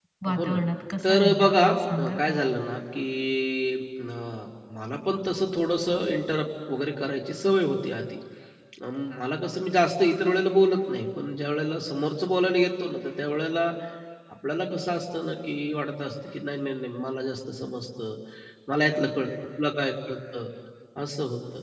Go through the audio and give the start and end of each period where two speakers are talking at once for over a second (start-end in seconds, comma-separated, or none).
1.0-2.4